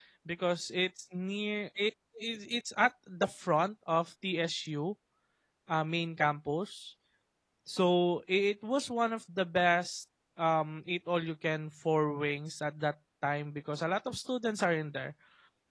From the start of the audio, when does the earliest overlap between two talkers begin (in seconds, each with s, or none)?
none